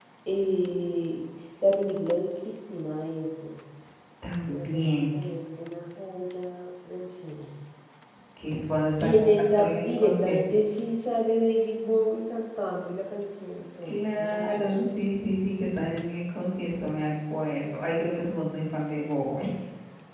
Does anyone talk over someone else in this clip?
Yes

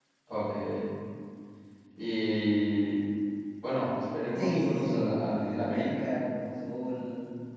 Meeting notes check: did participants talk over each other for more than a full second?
Yes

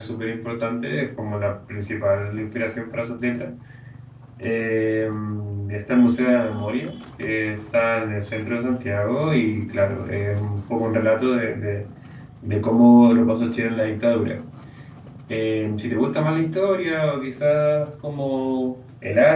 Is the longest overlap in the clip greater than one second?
No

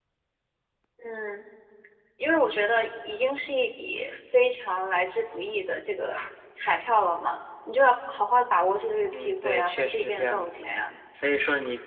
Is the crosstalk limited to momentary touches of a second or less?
No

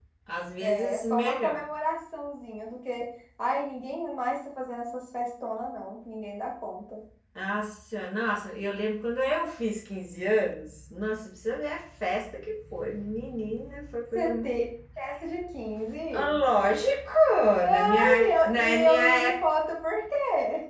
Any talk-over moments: Yes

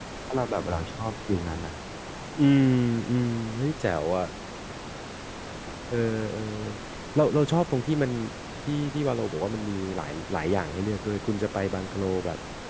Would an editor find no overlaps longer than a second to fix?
Yes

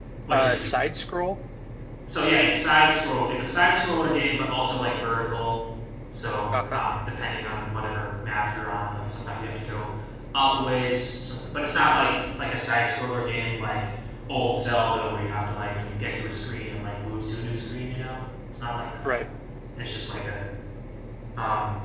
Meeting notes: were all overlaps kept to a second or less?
Yes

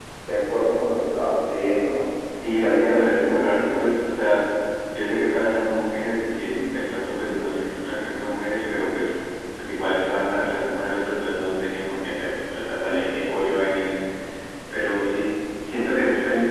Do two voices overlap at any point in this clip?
Yes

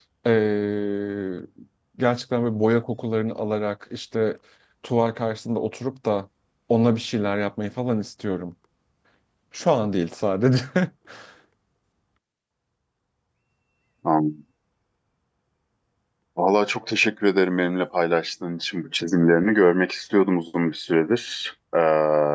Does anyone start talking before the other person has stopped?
No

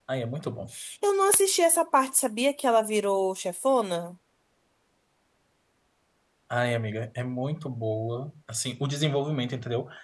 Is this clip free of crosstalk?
Yes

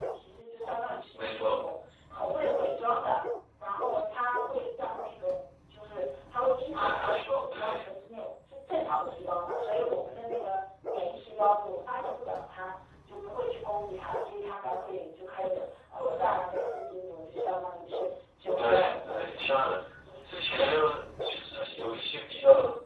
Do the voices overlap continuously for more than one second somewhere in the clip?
Yes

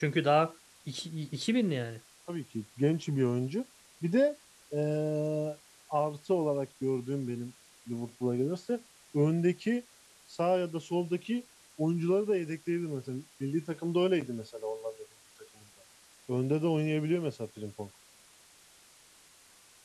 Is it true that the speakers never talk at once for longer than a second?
Yes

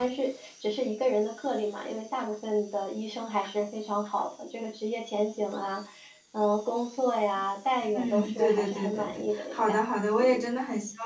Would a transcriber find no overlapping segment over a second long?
No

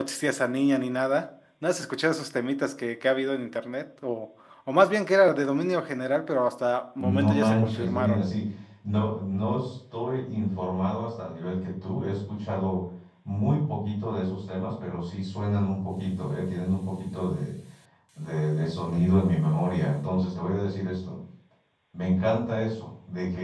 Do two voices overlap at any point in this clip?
Yes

